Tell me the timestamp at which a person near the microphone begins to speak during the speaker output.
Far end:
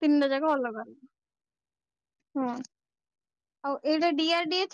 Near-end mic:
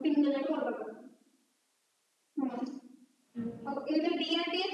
3.3 s

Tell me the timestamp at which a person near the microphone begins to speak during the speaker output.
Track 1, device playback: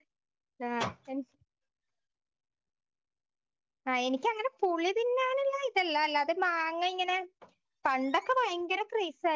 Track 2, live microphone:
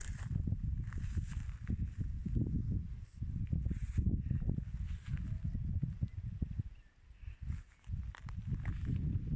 none

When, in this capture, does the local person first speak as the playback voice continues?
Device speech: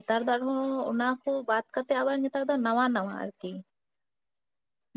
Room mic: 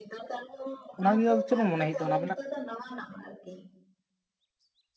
1.0 s

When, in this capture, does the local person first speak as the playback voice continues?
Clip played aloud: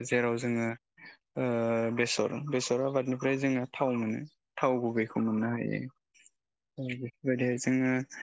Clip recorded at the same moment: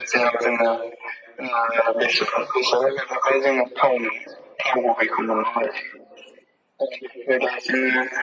none

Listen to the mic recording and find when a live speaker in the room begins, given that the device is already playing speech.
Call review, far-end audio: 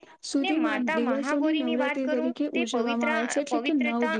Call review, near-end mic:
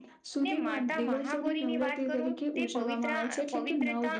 none

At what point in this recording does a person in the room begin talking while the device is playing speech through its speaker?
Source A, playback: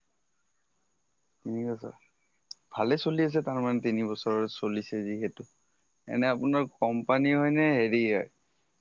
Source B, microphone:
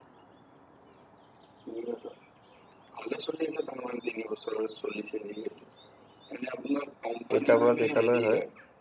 7.3 s

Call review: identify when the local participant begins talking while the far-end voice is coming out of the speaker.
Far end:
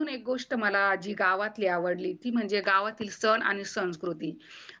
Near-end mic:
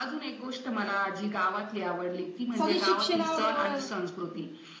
2.6 s

